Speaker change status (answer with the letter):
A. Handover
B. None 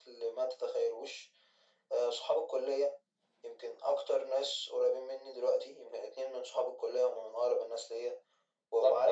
A